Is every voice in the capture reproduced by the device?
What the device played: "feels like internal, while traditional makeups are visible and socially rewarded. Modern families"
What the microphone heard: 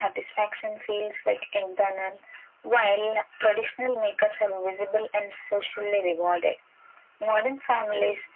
Yes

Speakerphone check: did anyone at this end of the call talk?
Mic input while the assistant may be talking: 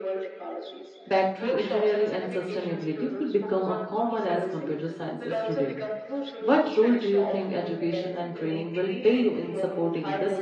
Yes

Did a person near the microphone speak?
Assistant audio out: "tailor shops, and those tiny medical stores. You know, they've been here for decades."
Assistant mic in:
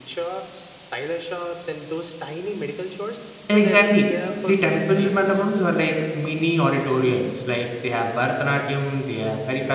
Yes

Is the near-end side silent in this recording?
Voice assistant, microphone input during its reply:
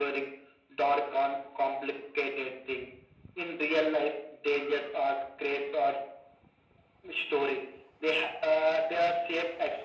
Yes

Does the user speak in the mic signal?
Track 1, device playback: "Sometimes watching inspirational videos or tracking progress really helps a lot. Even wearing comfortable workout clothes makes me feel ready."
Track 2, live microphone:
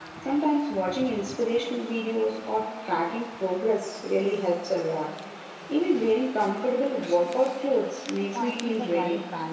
Yes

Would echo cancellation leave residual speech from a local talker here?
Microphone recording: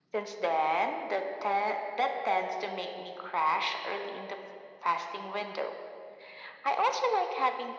No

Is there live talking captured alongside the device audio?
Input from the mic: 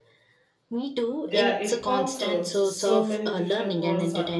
Yes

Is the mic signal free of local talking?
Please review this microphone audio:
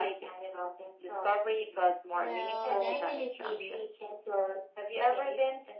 No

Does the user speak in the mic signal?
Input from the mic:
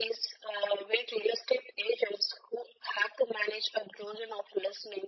No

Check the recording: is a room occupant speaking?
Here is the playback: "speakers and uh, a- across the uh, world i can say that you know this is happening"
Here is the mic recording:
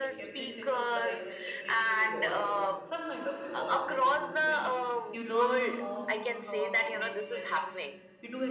Yes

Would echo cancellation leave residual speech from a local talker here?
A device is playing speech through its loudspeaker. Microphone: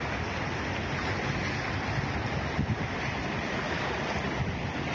No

